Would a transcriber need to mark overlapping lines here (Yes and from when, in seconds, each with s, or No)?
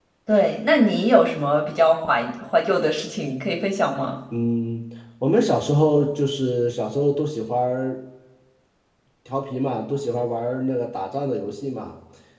No